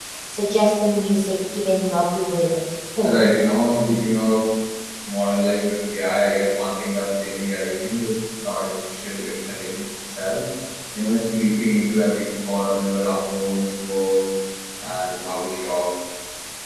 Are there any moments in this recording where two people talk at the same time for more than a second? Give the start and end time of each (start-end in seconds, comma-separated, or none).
none